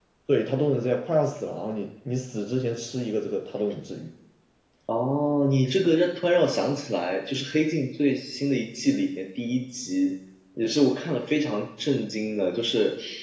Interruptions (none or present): none